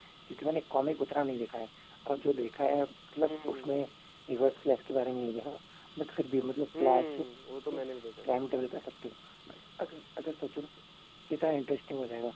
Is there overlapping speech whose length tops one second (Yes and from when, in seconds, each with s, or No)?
No